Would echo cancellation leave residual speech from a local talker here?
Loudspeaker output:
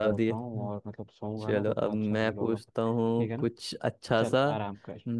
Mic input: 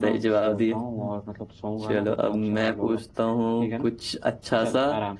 No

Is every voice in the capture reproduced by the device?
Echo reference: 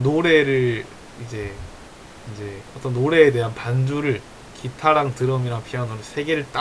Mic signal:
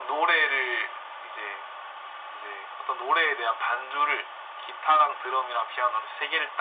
Yes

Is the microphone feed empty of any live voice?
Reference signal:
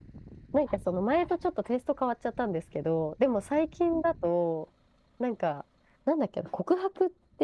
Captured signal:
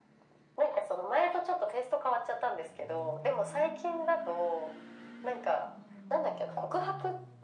Yes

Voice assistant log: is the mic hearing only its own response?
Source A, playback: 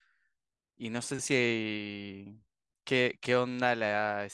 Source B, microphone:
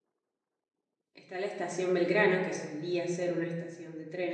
No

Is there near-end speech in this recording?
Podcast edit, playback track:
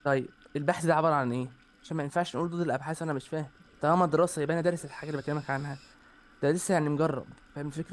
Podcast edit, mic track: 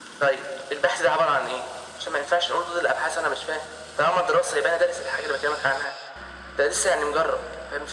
No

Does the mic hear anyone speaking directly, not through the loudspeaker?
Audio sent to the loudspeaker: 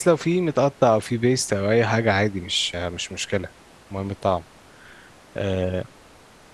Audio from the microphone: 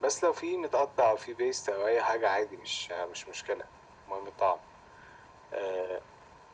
No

